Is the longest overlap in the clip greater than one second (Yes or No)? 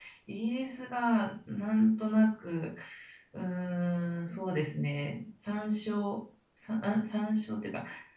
No